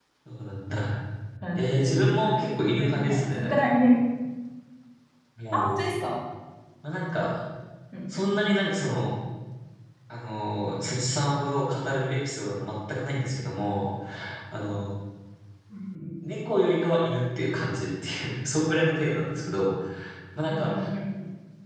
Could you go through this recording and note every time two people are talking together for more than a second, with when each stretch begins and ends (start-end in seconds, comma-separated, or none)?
1.6-3.7